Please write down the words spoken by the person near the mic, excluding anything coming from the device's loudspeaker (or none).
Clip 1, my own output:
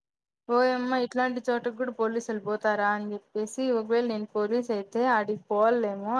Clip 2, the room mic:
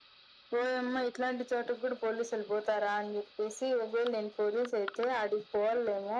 none